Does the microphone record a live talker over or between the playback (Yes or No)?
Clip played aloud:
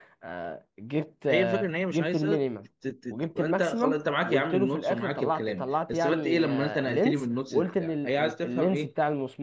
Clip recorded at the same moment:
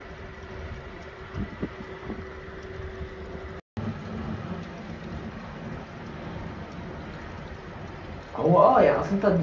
Yes